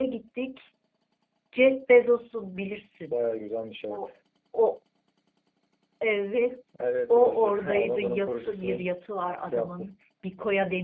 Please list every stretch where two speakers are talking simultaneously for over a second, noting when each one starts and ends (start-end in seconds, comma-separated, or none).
7.1-8.8